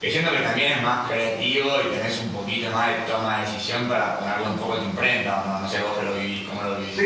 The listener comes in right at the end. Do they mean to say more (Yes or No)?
Yes